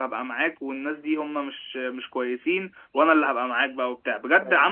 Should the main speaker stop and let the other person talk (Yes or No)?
No